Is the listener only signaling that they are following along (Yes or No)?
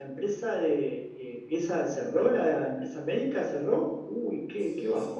No